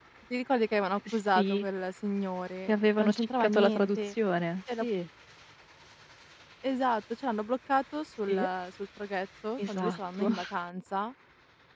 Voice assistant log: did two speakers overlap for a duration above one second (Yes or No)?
Yes